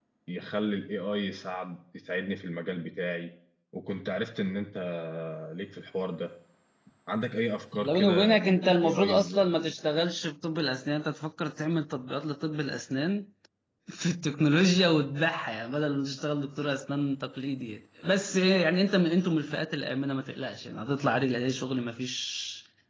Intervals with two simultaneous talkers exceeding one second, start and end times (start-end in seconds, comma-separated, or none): 7.8-9.4